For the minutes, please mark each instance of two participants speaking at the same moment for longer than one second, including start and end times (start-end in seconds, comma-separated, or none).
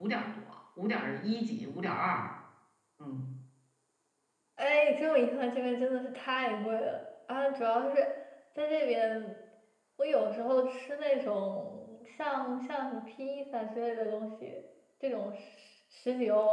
none